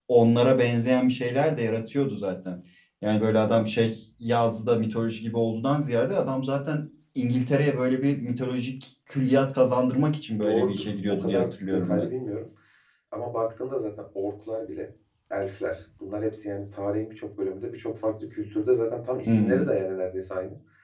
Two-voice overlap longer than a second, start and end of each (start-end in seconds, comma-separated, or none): 10.4-12.1